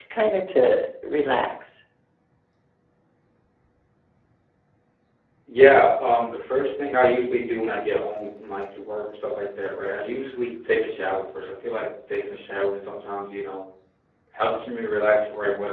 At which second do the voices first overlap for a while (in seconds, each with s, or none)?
none